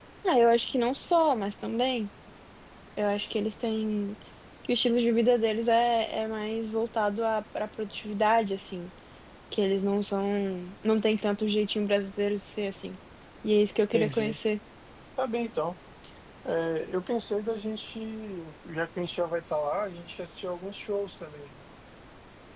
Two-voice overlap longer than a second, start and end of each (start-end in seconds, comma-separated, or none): none